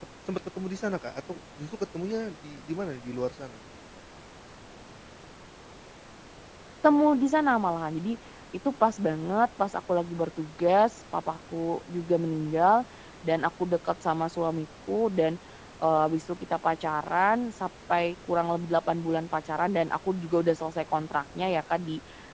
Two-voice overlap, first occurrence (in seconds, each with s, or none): none